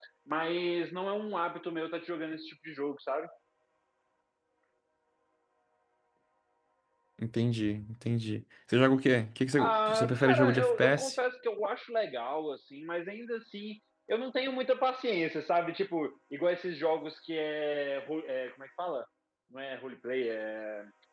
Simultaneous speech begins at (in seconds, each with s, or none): 9.5 s